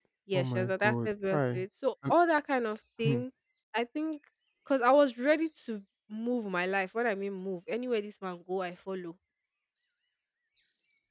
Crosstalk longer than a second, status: present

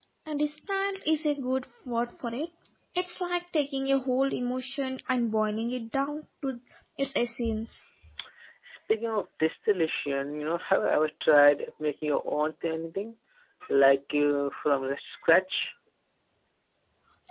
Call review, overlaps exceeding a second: none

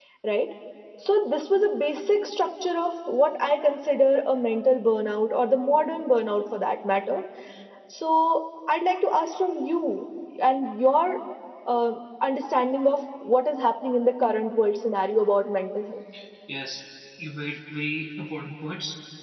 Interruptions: none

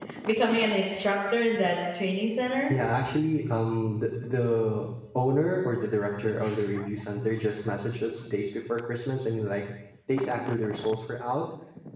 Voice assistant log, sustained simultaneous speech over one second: none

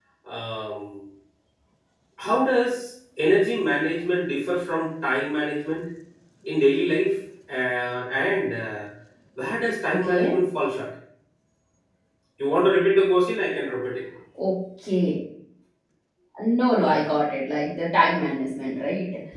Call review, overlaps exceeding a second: none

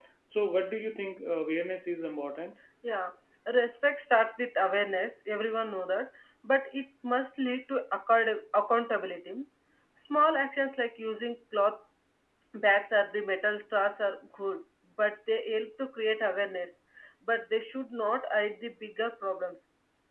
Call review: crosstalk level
none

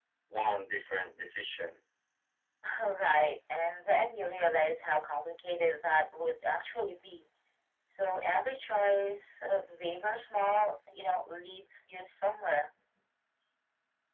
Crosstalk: none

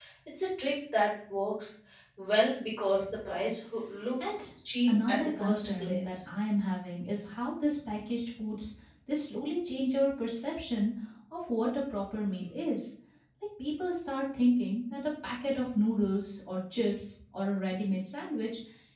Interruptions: present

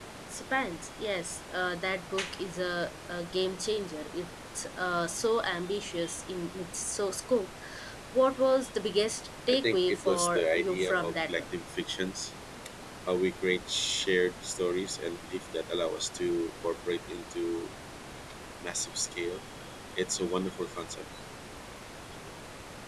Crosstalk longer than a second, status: present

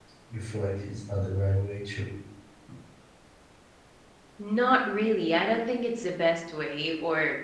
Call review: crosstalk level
none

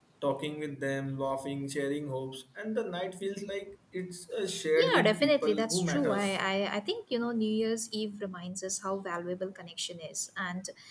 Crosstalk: present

